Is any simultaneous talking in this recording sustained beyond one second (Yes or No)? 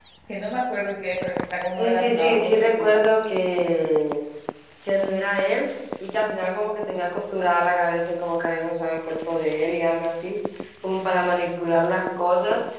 Yes